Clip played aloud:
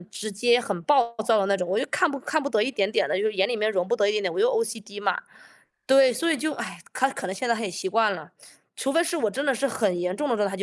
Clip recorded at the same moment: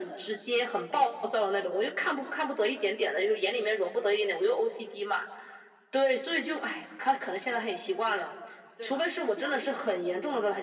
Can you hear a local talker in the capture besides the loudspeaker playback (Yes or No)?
Yes